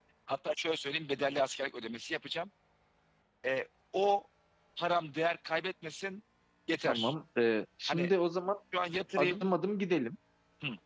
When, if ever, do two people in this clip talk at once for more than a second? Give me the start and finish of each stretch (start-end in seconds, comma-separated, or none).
none